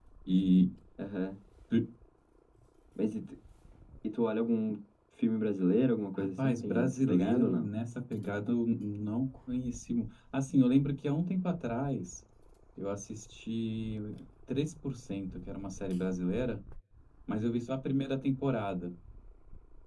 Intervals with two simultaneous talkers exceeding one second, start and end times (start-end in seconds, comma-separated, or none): 6.2-7.7